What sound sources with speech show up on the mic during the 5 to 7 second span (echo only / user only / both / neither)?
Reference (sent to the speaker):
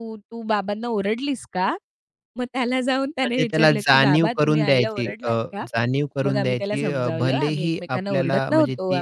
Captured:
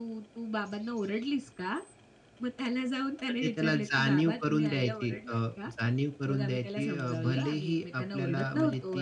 echo only